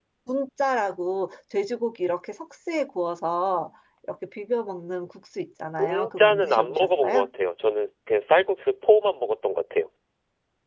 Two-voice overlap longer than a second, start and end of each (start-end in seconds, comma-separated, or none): 5.8-7.3